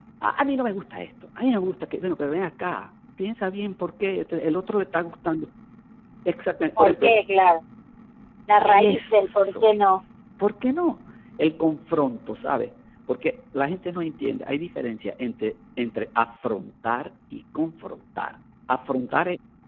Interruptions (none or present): present